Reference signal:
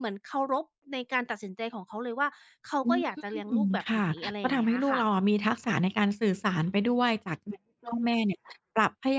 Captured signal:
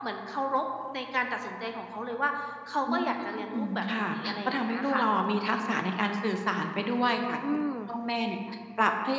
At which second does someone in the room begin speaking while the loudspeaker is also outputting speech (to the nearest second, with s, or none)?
7 s